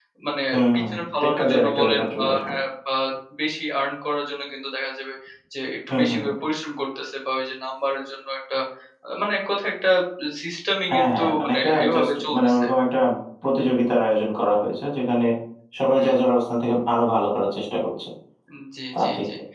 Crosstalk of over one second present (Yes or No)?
Yes